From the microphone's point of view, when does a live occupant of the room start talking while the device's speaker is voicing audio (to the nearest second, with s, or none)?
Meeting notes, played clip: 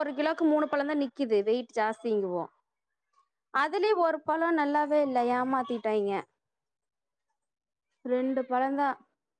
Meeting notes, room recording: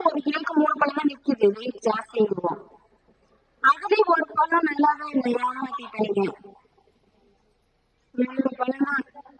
none